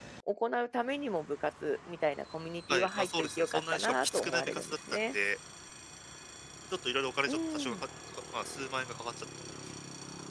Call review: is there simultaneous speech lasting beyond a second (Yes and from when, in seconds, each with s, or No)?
Yes, from 2.7 s